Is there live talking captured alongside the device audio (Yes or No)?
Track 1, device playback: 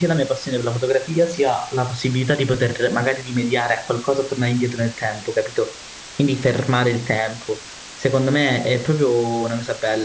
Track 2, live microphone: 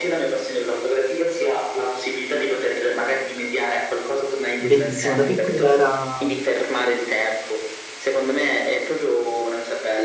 Yes